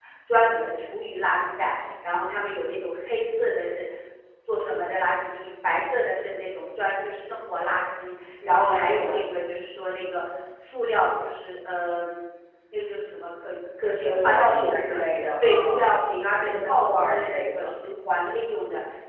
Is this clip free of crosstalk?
No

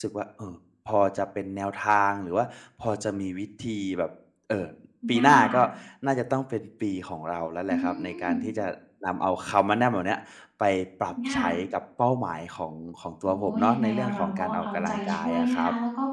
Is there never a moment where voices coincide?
No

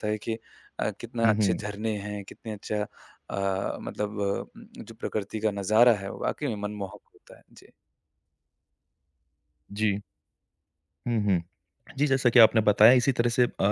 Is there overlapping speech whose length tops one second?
No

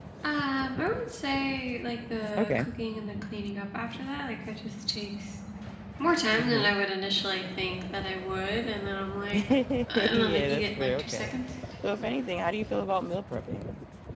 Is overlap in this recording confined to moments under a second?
No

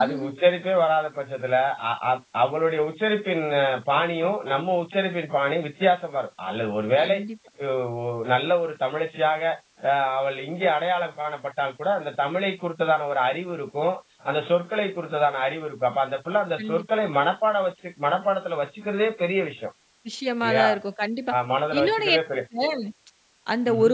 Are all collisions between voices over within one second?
Yes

